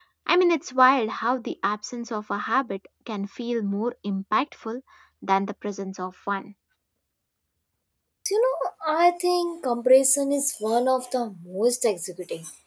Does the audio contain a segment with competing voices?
No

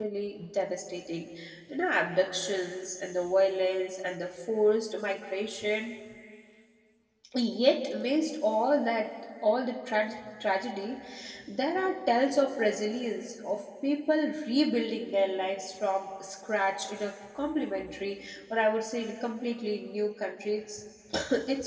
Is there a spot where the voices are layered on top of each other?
No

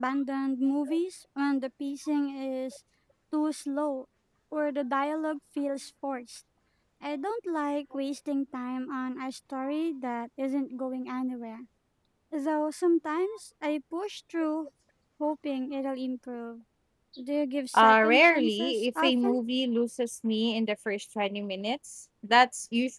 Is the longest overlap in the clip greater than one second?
Yes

